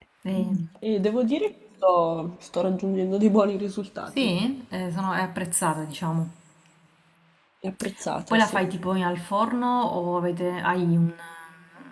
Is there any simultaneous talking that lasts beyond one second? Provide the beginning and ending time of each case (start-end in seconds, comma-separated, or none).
none